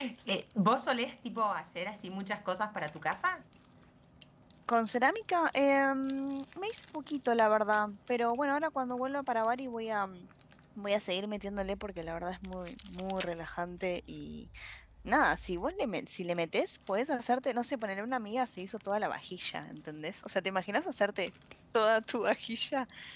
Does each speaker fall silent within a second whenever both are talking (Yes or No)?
Yes